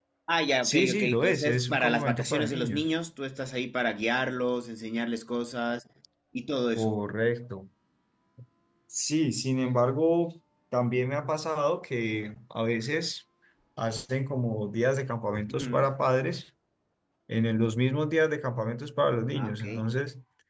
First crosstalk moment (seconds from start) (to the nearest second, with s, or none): 1 s